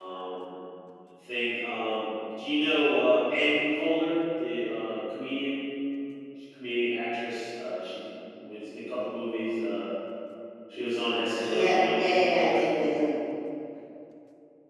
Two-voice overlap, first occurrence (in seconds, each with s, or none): 11.4 s